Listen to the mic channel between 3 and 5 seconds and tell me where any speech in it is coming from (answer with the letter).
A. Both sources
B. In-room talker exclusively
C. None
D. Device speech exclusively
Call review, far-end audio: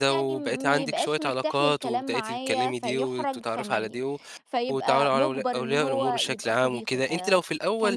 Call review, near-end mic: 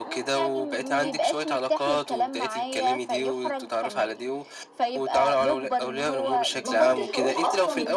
D